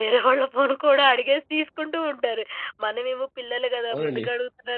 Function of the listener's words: listening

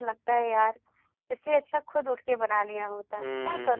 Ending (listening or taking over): taking over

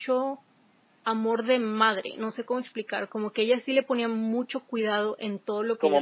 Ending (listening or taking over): listening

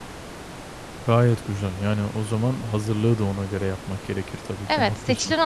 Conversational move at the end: taking over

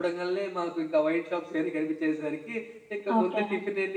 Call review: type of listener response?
listening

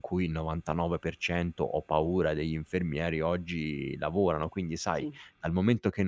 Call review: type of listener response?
listening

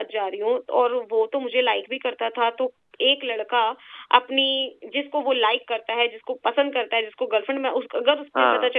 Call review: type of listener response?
listening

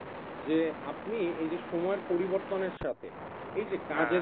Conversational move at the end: listening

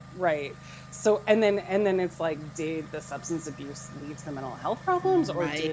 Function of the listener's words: listening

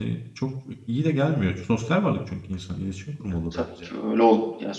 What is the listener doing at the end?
taking over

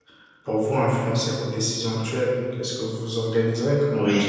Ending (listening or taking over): listening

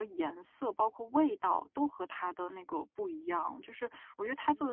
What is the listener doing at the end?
listening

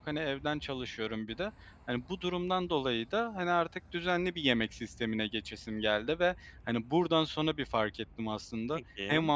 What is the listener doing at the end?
listening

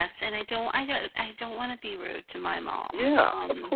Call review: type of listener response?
taking over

